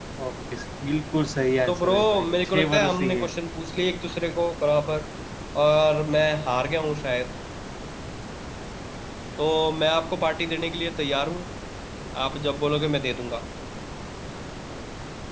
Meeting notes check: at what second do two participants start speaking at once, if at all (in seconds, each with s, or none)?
1.6 s